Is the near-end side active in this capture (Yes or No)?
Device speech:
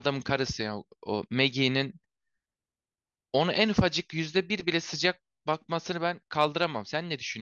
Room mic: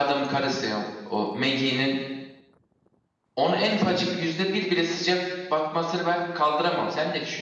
No